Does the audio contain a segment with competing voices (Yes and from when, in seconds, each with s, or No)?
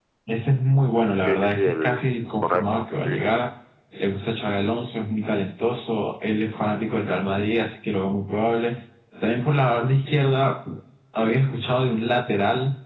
Yes, from 1.1 s